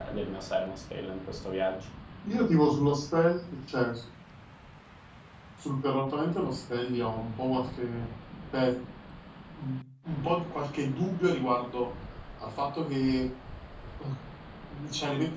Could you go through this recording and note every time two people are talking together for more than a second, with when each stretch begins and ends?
none

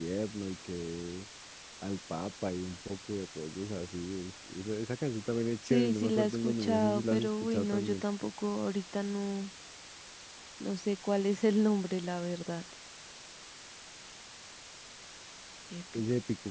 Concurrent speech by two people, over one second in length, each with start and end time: 5.7-8.0

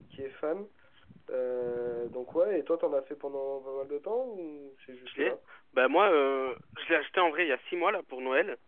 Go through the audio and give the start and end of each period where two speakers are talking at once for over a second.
none

